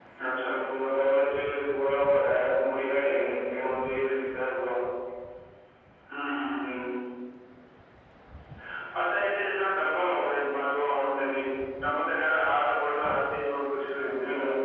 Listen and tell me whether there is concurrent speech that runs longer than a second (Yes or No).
No